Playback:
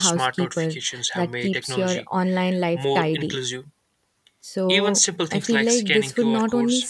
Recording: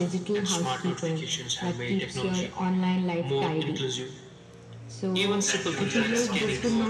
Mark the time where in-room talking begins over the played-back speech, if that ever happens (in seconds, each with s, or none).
5.4 s